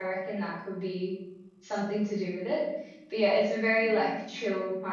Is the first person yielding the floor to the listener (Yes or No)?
No